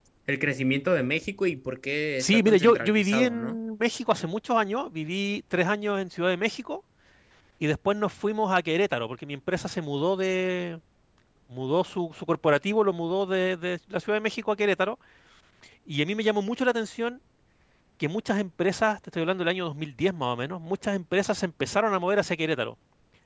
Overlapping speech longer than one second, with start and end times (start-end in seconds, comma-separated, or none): 2.2-3.6